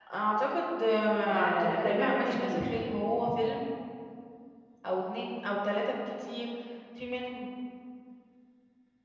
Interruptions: present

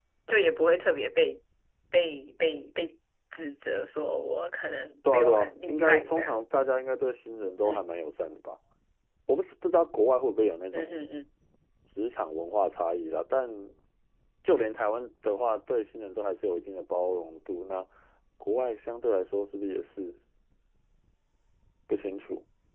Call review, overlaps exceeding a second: present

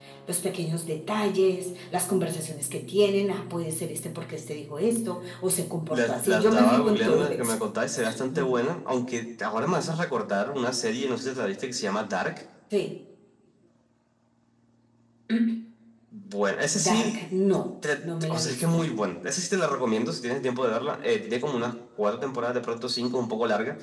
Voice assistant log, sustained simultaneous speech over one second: present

